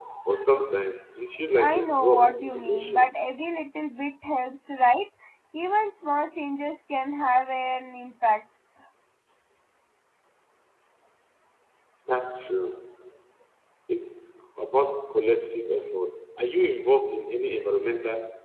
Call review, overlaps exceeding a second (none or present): present